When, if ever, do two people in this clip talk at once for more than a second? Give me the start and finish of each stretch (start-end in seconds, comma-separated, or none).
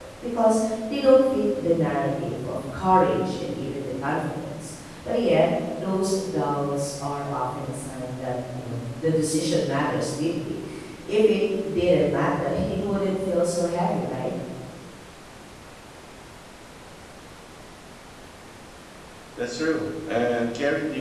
none